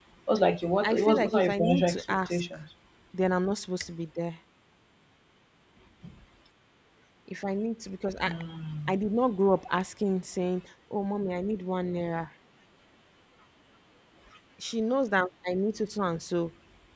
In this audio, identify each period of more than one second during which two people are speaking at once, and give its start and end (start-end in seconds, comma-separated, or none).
0.8-2.4